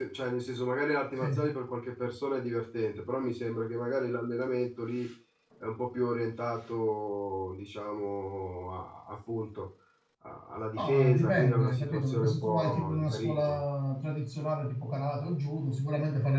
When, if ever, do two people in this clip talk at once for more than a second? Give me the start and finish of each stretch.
10.8-13.6

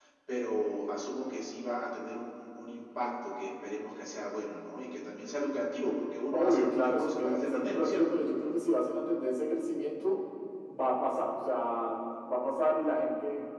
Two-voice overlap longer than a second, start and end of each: 6.3-8.0

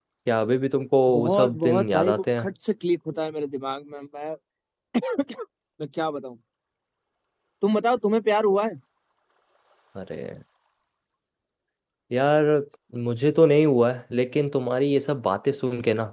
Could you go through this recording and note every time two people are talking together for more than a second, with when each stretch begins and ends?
1.1-2.5

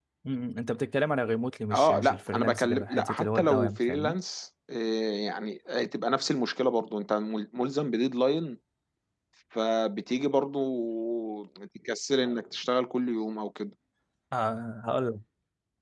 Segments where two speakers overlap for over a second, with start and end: 1.7-4.2

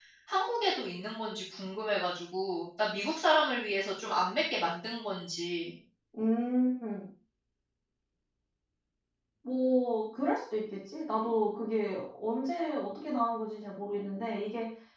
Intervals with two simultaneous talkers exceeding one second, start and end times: none

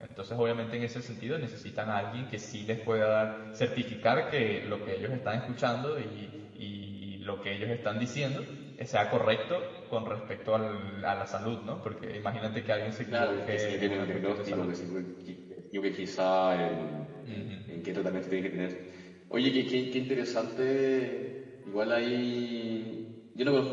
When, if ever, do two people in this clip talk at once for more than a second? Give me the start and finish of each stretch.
13.1-14.7

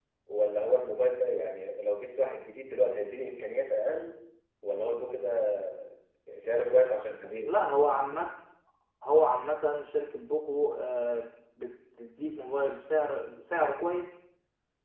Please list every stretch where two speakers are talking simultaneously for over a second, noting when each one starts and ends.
none

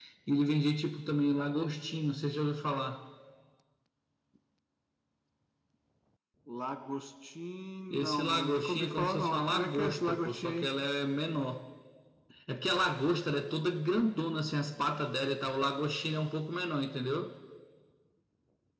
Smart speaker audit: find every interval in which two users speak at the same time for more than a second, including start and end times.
7.9-10.7

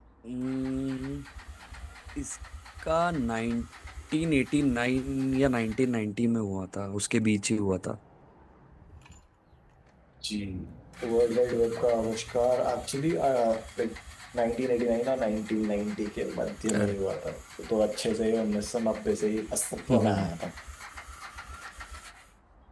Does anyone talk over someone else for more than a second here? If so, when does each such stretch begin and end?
none

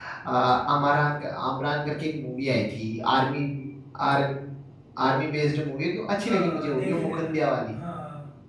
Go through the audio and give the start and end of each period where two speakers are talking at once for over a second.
6.2-7.4

